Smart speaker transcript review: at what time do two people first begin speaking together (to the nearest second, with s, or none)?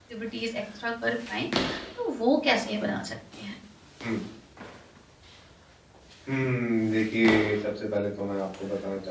none